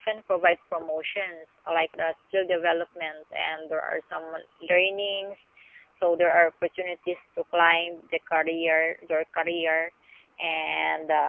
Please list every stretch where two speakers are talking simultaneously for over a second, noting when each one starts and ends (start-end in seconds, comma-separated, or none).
none